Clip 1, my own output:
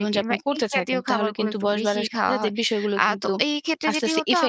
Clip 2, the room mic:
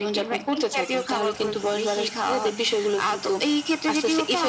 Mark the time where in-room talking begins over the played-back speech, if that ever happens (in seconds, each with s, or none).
none